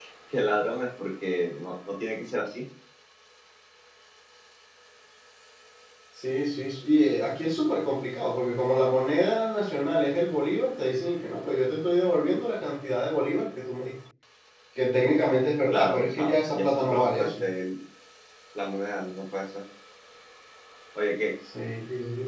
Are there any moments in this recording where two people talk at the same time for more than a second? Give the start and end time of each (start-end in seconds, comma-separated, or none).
15.7-17.5